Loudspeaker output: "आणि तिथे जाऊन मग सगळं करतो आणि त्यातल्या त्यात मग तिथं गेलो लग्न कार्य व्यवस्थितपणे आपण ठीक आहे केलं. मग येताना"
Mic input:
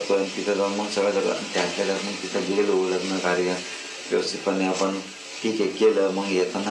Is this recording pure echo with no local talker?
Yes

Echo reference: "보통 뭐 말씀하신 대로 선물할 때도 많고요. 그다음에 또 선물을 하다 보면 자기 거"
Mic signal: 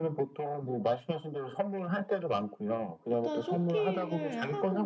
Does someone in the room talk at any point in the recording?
Yes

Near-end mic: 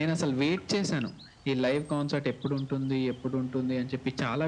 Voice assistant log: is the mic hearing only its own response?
Yes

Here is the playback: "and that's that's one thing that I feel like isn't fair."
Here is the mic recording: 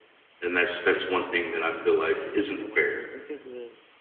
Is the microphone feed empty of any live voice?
No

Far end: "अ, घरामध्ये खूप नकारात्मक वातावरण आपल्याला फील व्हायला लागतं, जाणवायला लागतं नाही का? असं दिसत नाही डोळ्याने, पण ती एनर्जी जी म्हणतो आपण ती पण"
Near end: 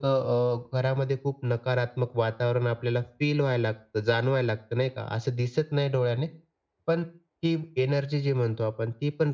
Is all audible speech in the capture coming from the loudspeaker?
Yes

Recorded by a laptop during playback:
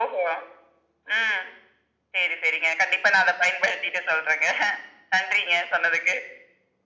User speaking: No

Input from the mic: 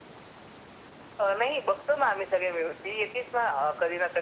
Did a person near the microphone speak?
No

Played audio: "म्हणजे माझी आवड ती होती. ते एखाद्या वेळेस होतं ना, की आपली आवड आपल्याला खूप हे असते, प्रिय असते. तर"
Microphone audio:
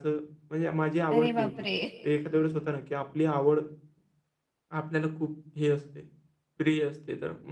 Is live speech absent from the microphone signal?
No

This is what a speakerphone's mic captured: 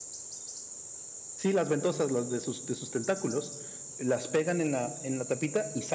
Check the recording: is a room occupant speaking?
Yes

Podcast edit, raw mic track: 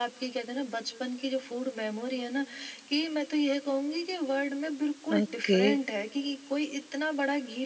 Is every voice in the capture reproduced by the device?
No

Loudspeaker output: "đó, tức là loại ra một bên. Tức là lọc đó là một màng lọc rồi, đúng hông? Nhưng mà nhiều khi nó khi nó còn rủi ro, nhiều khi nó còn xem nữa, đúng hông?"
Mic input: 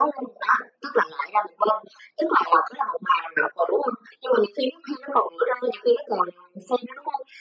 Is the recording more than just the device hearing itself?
No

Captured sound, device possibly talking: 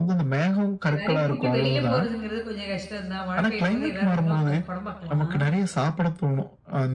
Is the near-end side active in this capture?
Yes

